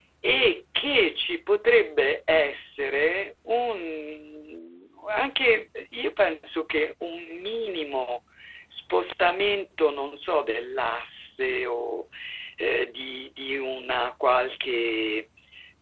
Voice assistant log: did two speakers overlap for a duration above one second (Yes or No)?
No